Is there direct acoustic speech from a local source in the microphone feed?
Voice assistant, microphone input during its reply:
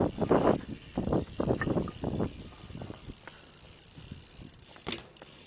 No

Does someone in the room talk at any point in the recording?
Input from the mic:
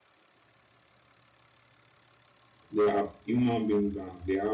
Yes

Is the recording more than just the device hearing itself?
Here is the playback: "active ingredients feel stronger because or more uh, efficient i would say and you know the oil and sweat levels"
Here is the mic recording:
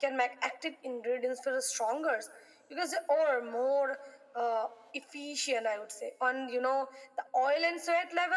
No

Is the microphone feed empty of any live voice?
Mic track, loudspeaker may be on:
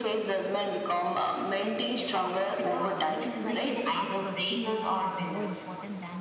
No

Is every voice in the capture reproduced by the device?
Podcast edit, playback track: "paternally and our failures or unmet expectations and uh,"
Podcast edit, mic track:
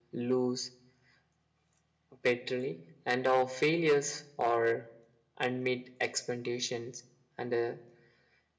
Yes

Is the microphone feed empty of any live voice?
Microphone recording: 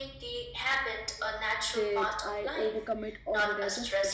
No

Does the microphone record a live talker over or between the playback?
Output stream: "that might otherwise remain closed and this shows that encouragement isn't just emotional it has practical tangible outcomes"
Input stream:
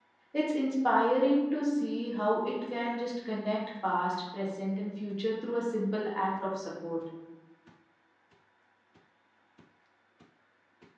Yes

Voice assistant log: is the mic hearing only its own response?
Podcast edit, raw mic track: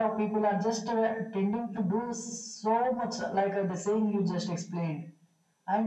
Yes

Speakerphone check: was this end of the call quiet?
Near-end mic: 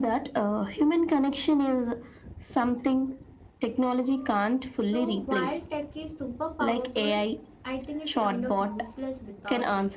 No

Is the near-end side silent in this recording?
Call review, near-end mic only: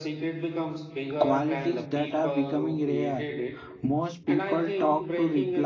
No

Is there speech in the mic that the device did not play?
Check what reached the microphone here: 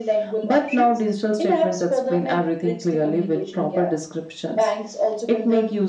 No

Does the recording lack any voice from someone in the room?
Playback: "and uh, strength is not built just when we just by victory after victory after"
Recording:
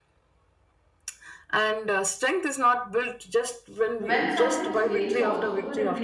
No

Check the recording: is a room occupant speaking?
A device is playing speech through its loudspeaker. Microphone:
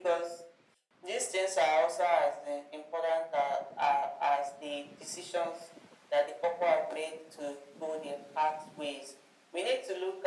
No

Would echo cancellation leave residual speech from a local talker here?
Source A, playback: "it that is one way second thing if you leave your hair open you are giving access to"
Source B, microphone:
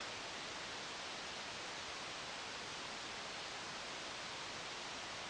No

